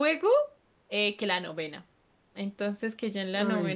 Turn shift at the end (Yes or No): No